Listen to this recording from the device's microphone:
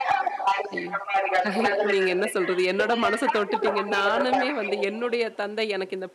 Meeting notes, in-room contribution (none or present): present